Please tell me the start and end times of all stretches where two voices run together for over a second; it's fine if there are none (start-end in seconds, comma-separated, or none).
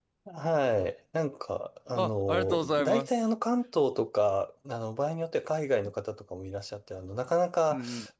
2.0-3.2